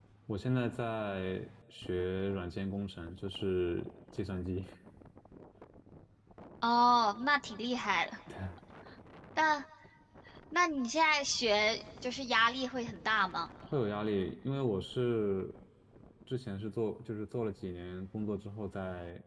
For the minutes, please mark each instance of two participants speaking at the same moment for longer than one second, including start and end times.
none

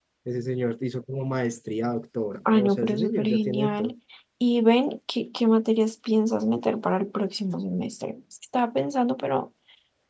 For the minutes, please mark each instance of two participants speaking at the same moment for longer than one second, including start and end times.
2.5-3.9

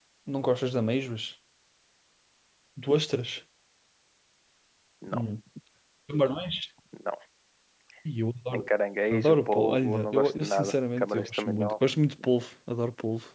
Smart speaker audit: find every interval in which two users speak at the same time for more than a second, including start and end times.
9.1-11.7

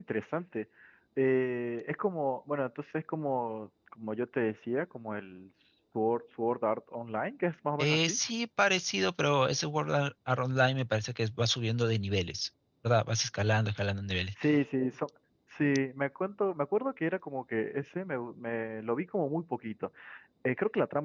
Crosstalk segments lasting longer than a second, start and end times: none

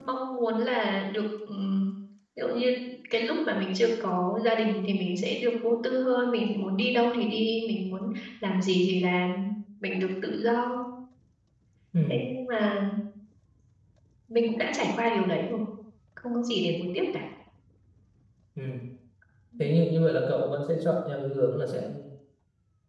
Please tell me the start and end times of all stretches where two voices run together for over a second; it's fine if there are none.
none

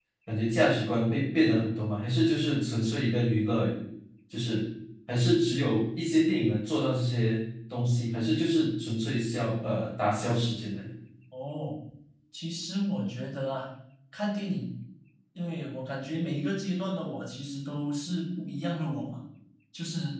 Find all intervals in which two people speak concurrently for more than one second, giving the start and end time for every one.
none

